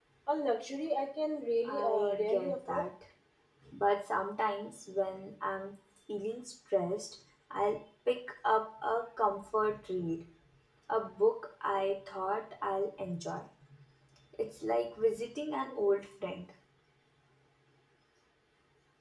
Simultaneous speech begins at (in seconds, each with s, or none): 1.6 s